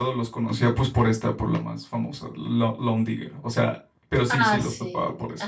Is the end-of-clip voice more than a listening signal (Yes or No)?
Yes